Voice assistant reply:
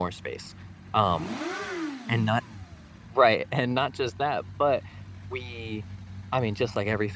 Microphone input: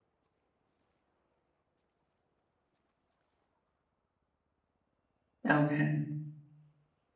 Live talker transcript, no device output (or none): Okay.